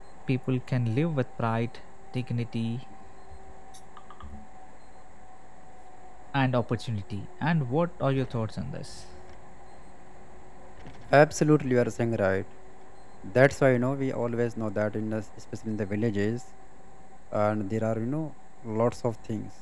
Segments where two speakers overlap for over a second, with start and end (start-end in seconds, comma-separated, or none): none